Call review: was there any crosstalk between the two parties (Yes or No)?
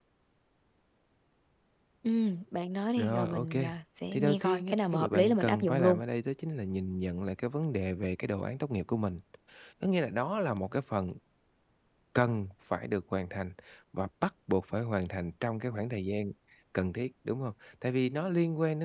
Yes